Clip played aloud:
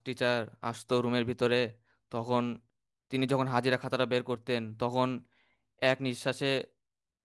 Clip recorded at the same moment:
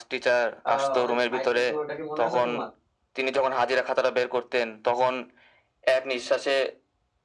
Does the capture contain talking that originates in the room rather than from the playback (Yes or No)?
Yes